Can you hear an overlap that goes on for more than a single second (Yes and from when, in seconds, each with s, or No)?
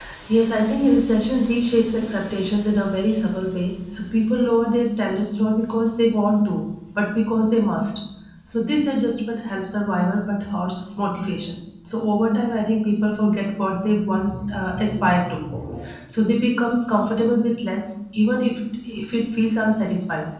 No